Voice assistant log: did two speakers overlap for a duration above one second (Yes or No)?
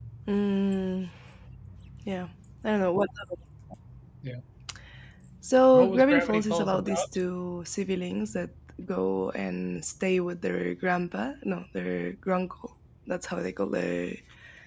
Yes